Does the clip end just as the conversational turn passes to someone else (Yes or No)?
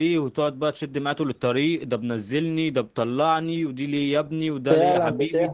Yes